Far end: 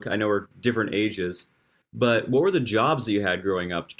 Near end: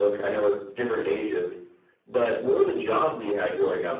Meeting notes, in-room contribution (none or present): none